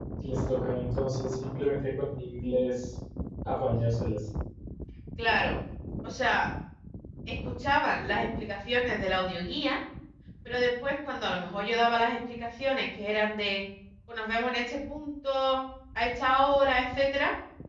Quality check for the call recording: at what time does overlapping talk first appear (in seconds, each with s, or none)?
none